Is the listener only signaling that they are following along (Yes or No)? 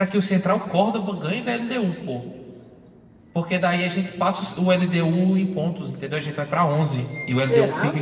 Yes